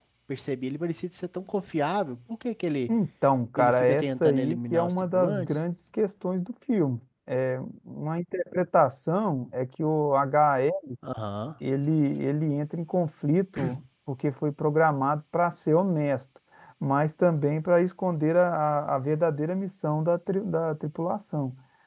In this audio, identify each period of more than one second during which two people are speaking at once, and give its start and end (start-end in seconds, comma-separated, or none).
3.6-5.6